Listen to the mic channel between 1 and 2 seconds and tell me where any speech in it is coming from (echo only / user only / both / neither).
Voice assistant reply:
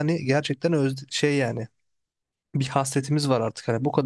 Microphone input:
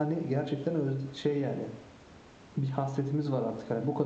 echo only